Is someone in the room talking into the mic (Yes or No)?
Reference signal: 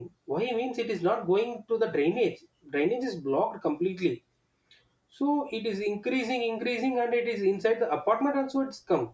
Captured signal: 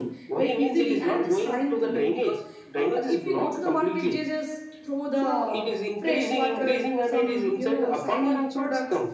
Yes